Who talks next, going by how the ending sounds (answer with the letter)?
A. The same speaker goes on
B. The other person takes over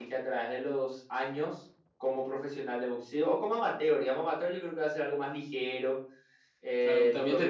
B